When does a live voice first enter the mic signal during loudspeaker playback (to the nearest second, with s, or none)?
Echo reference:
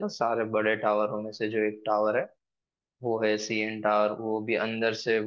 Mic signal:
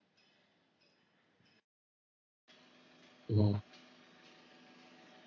3 s